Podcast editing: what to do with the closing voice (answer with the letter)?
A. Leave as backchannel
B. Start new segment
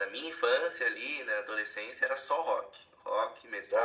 A